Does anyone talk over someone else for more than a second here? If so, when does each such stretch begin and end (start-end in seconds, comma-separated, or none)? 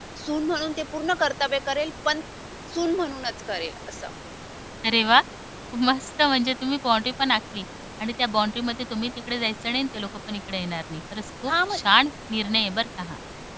none